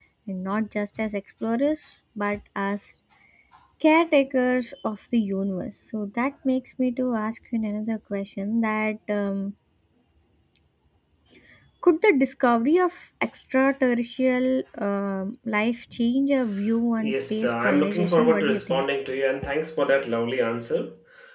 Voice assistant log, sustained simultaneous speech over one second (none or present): present